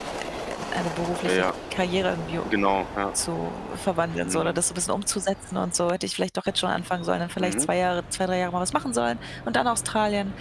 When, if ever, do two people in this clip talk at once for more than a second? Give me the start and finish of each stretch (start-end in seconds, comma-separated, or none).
none